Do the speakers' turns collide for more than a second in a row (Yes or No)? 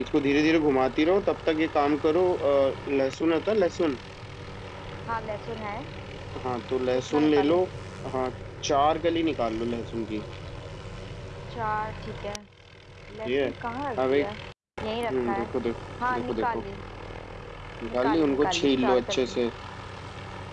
Yes